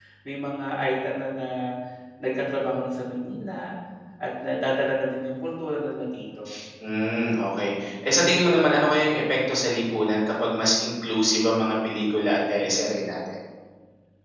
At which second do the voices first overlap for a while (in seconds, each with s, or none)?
none